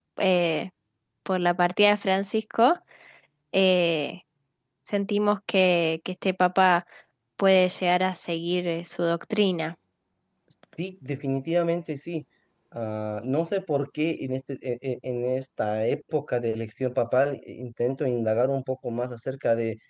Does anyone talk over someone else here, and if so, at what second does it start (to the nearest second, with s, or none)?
none